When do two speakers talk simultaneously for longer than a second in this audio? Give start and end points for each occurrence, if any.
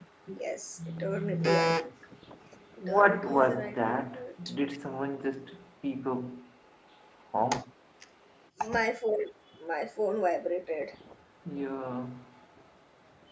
2.8-4.2

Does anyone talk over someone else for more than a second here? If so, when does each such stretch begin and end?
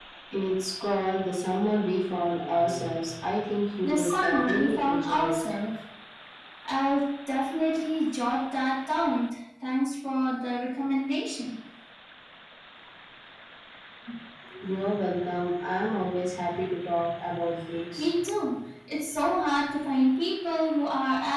3.8-5.4

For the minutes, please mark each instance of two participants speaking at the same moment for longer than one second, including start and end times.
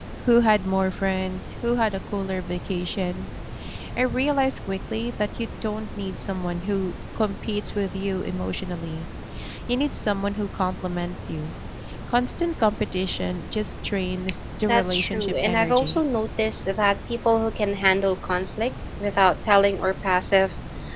14.7-16.0

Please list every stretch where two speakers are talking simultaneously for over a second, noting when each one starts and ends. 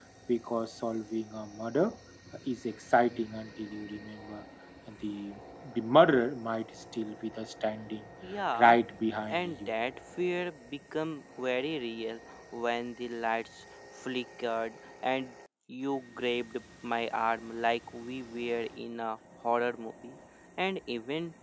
none

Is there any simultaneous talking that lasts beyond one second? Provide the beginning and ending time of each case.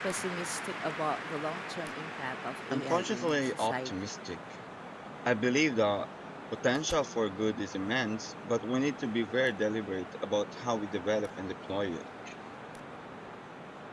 2.7-3.9

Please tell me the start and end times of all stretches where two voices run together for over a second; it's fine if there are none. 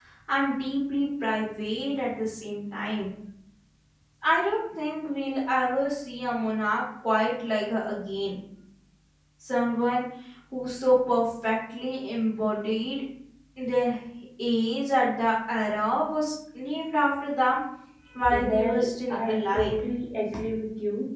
18.3-19.8

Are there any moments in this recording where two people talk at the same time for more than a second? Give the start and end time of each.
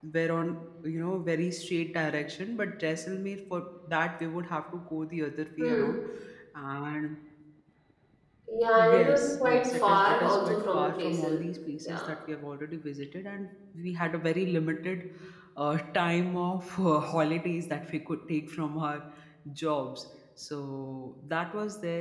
8.8-11.4

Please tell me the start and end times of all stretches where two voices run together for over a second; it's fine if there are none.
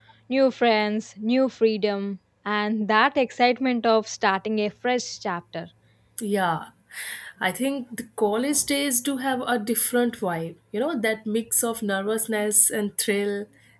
none

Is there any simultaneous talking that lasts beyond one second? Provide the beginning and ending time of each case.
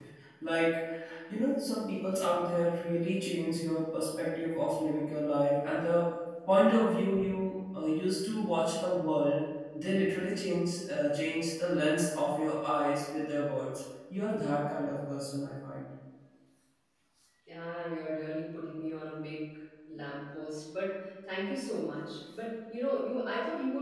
none

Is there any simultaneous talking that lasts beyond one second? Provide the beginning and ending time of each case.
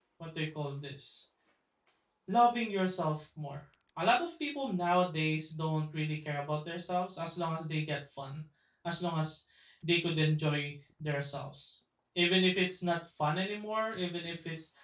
none

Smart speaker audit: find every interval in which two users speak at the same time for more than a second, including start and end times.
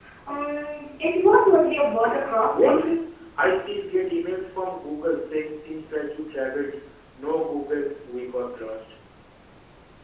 none

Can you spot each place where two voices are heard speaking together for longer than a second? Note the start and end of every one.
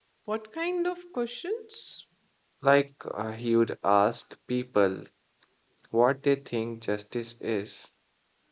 none

